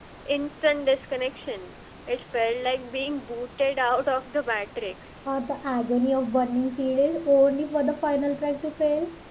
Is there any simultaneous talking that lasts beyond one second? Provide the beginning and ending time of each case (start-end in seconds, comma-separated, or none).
none